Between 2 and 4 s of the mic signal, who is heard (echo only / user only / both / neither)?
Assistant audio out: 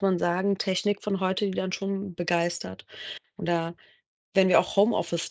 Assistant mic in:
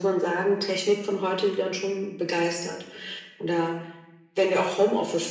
echo only